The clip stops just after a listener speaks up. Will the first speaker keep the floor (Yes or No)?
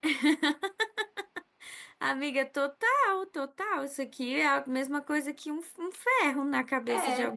No